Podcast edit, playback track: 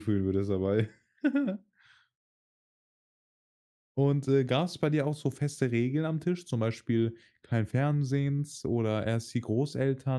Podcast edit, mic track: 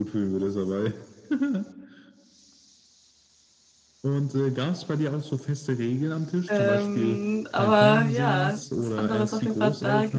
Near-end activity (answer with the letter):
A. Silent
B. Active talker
B